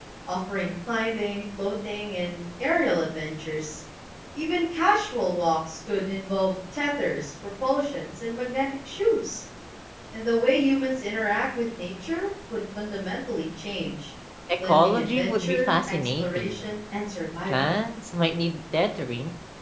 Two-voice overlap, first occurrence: 15 s

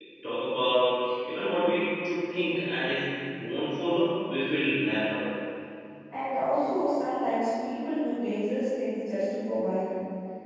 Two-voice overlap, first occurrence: none

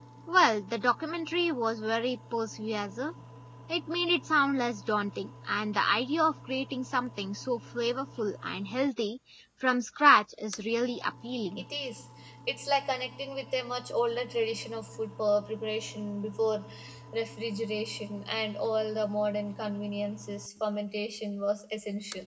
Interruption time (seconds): none

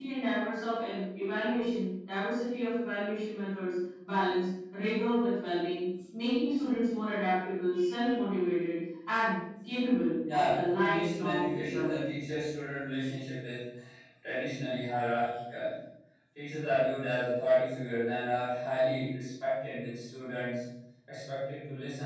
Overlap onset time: 10 s

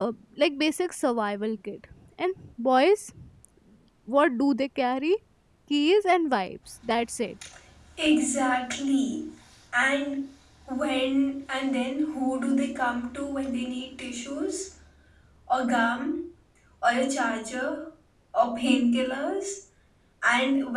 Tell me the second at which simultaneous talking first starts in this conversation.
none

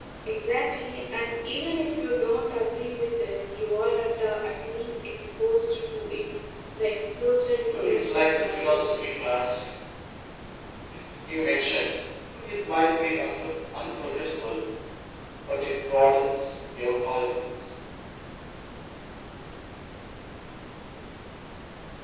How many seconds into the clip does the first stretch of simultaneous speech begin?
8 s

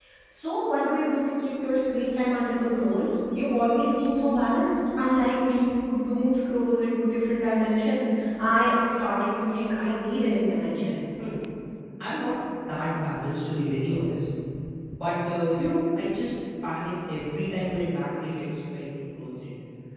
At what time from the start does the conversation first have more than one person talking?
none

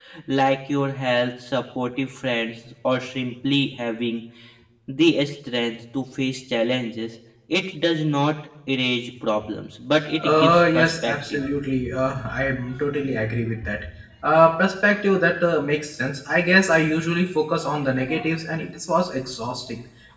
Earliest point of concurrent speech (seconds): 10 s

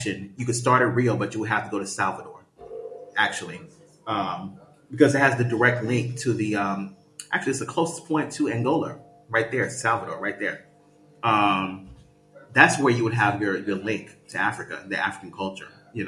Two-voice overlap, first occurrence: none

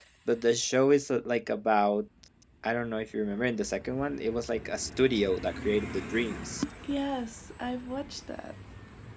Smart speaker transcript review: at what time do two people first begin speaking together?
none

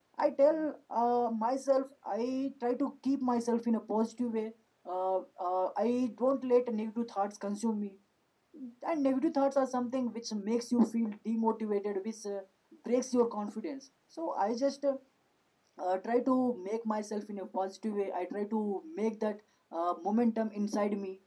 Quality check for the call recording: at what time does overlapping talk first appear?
none

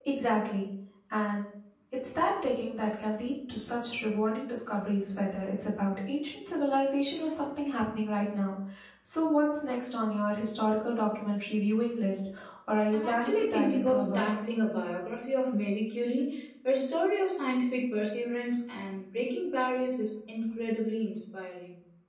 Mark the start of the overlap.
13 s

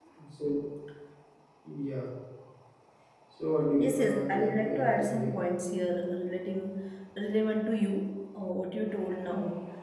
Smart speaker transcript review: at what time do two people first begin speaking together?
4 s

